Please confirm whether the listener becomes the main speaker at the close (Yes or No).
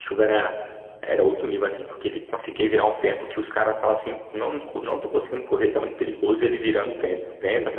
Yes